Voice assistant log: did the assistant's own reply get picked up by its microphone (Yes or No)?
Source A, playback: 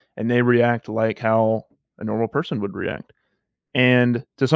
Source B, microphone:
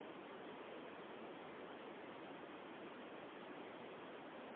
No